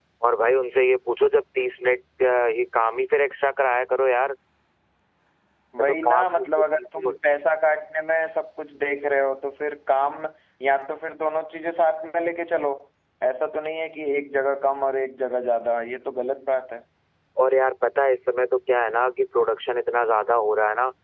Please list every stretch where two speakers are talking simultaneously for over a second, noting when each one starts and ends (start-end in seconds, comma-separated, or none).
5.8-7.0